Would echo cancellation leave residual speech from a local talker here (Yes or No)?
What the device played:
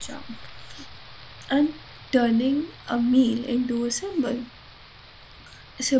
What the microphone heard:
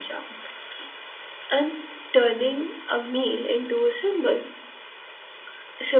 No